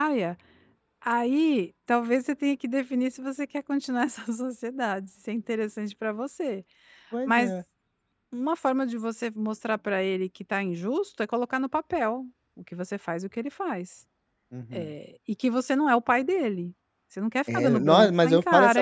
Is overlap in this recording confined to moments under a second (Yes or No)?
No